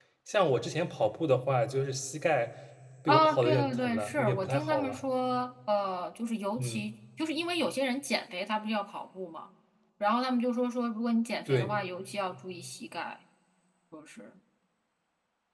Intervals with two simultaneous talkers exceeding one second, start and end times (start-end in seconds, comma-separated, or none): 3.1-5.0